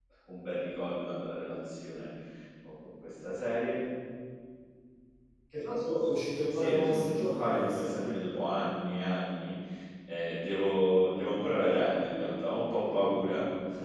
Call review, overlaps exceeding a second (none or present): present